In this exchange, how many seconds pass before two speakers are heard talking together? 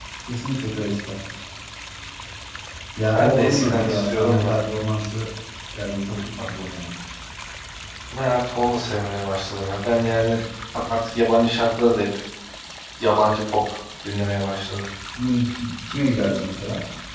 3.1 s

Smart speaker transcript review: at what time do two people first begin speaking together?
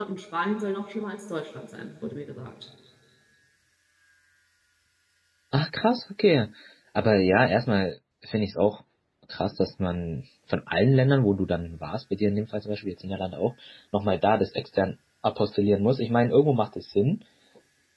none

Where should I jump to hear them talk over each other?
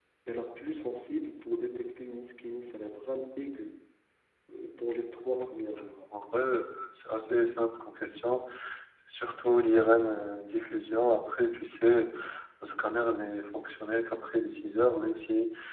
none

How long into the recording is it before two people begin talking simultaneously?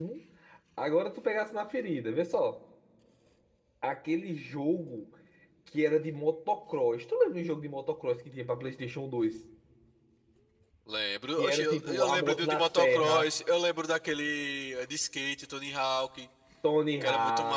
11.4 s

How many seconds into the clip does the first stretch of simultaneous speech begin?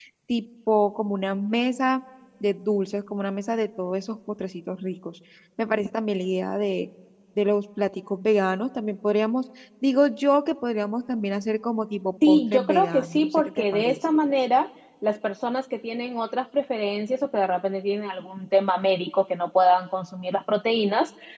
12.2 s

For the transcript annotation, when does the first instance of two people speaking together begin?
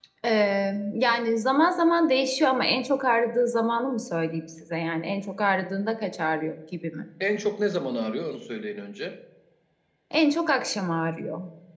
none

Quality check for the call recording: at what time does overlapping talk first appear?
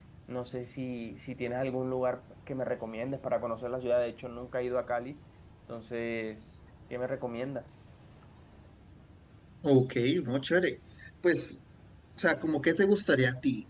none

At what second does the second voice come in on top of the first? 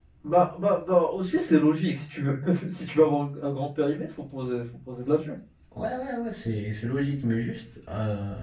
none

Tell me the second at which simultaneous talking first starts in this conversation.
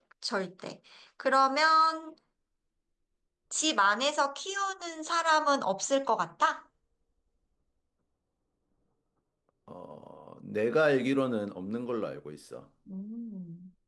none

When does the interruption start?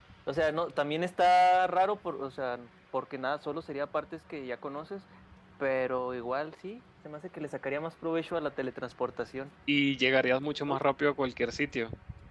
none

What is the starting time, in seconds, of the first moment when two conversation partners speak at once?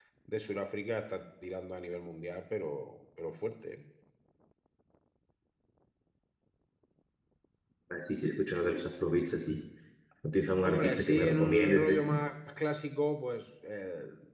10.6 s

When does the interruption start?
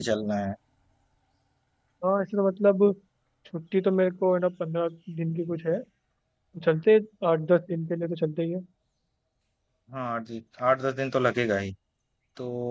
none

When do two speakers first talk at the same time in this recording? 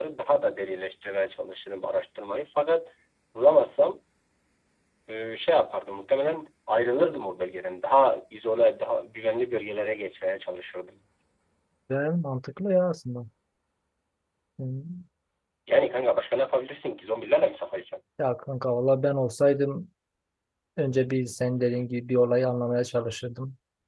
none

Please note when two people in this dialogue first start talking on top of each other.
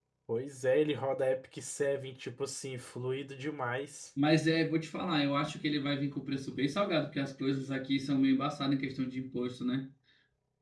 none

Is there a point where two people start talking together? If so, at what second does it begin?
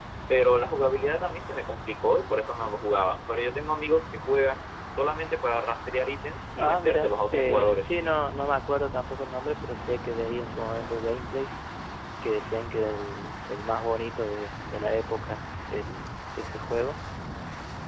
6.6 s

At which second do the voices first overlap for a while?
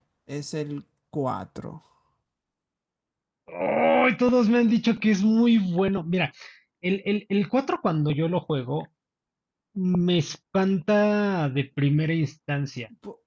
none

